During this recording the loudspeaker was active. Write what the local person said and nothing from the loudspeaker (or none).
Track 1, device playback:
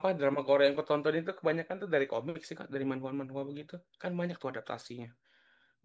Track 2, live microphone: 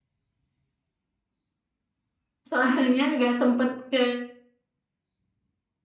Soalnya nggak sempet ke